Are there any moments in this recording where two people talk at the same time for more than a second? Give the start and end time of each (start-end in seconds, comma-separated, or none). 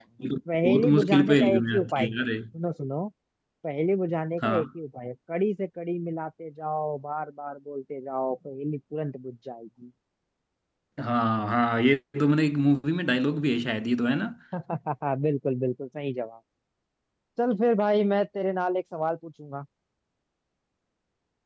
0.6-2.2